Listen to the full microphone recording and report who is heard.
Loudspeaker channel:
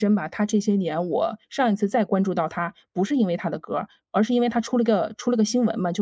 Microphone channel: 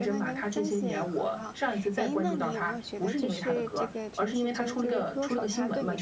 both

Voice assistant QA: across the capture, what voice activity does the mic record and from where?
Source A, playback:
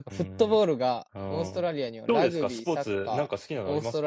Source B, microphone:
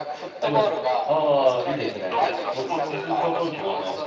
both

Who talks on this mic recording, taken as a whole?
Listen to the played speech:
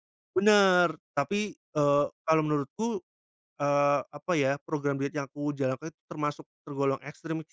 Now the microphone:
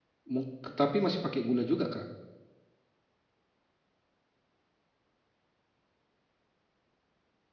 user only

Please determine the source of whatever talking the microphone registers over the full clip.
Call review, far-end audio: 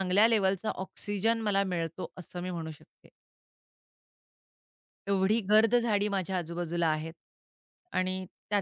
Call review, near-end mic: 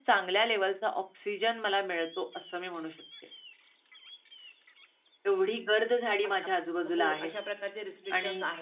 both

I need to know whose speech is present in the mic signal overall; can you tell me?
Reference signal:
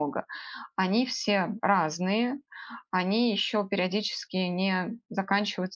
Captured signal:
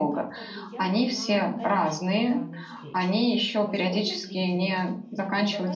both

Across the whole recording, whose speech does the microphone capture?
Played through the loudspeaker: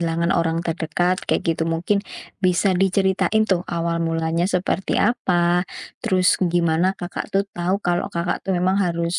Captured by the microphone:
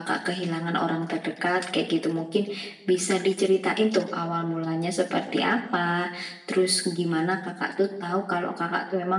echo only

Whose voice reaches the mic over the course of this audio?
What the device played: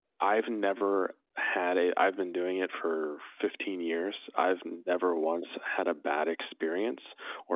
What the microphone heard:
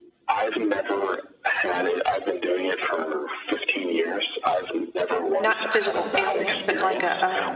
both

